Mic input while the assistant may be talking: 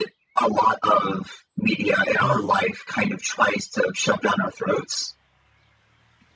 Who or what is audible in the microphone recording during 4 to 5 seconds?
echo only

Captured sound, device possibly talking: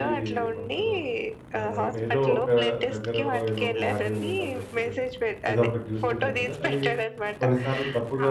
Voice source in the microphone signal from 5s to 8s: both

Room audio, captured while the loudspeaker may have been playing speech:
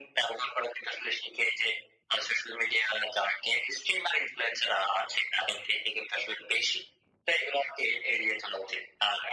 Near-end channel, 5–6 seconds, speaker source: echo only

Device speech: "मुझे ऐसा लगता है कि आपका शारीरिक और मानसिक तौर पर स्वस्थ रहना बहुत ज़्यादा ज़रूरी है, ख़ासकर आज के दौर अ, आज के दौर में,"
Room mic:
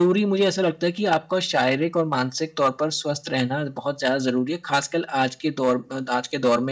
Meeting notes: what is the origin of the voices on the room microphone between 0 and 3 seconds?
echo only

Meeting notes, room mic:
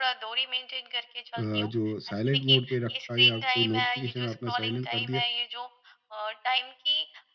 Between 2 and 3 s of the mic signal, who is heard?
both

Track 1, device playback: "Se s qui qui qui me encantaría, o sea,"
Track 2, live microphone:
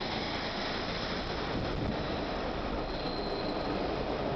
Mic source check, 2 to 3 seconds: neither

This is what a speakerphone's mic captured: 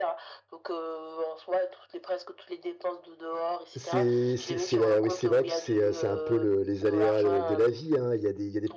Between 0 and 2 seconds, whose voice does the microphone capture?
echo only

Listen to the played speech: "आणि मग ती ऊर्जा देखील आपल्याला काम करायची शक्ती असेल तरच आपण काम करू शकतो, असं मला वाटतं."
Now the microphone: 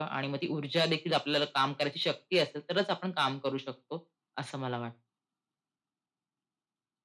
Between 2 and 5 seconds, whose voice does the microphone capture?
echo only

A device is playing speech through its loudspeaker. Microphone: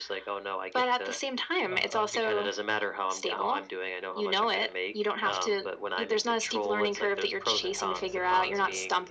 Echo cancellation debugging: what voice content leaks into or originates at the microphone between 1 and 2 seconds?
both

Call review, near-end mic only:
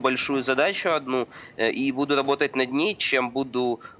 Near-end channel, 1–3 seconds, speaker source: echo only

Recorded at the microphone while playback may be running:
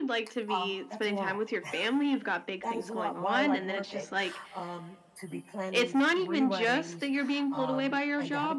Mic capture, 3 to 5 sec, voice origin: both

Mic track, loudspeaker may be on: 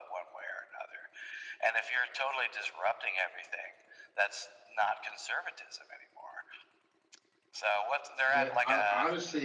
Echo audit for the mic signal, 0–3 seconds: echo only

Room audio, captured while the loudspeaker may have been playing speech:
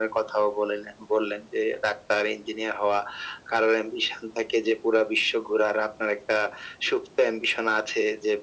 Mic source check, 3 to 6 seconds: echo only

